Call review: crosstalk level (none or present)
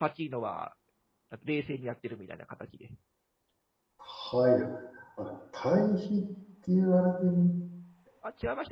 none